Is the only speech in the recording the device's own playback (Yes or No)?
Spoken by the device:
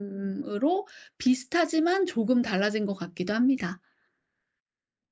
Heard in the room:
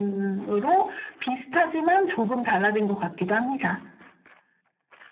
Yes